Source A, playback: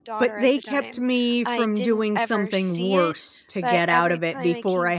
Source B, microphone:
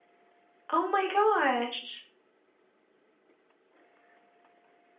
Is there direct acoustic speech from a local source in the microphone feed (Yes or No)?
Yes